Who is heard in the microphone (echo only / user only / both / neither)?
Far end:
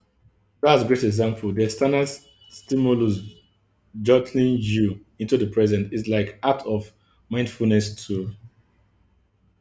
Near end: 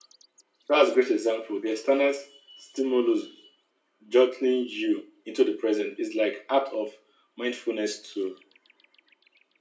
echo only